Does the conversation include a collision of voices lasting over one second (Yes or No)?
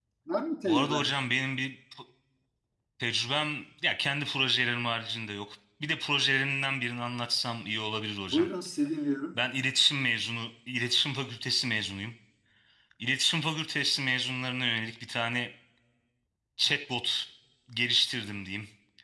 No